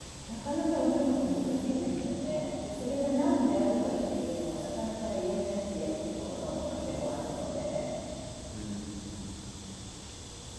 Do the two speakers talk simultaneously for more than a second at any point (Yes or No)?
No